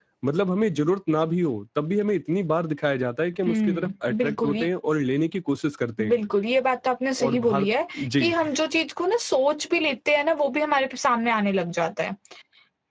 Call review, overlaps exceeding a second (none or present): present